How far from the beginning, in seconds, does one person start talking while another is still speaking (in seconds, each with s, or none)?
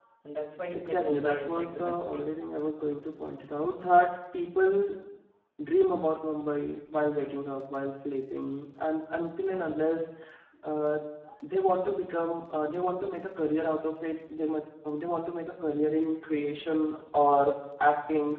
0.7 s